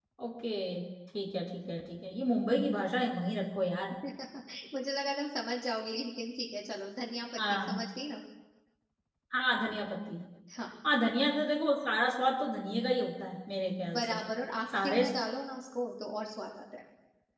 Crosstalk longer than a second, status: none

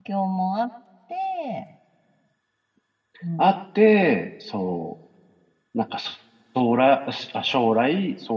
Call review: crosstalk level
none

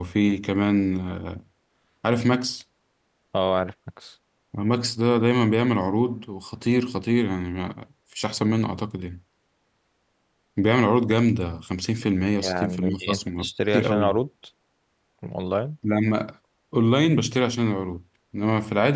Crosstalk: present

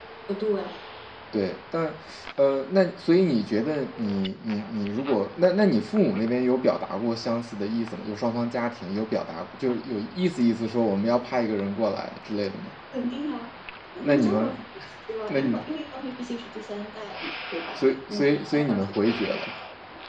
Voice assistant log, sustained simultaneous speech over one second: present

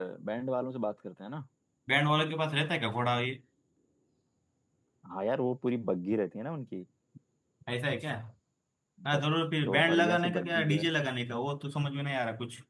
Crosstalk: present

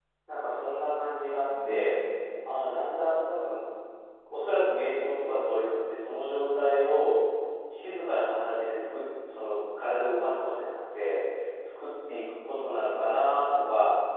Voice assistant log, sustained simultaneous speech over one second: none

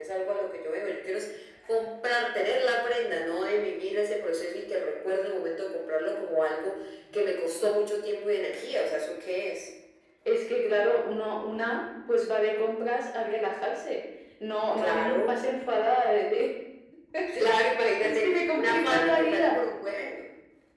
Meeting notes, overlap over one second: present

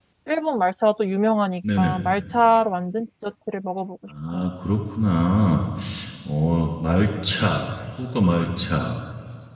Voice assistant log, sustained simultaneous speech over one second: none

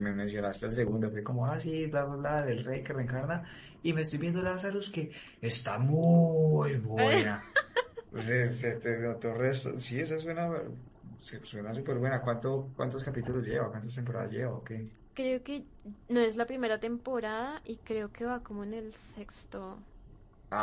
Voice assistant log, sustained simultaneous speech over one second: none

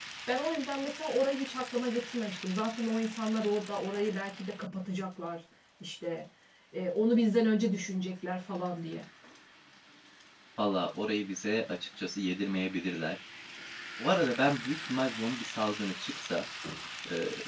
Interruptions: none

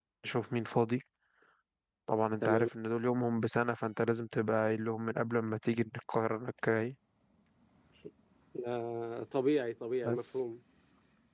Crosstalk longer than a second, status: none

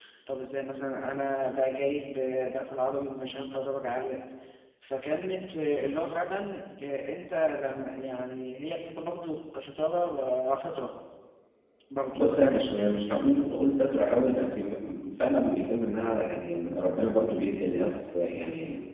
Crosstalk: none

